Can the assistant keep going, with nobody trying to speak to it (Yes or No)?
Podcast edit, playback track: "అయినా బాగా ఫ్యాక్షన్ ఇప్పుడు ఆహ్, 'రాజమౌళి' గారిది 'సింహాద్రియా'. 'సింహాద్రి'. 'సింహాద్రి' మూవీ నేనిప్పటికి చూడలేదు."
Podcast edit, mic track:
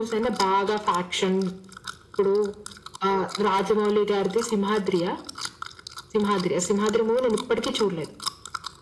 Yes